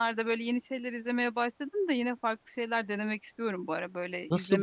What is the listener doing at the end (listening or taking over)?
taking over